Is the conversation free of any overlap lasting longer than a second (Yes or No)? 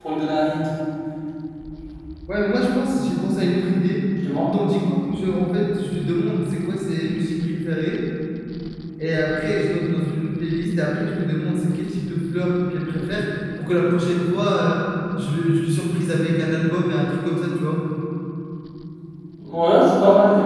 Yes